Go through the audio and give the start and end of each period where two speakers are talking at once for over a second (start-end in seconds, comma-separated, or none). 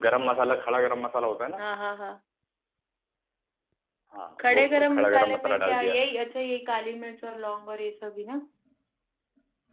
4.4-5.9